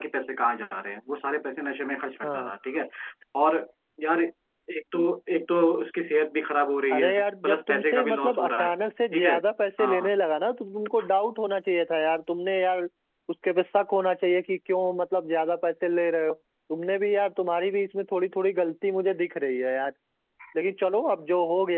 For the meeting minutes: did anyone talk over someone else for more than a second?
Yes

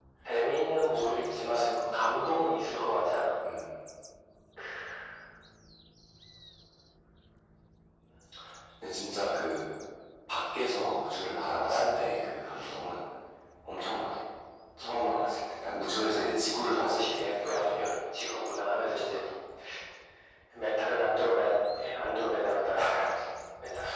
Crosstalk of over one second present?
Yes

